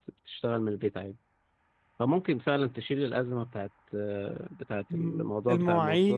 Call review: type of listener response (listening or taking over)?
taking over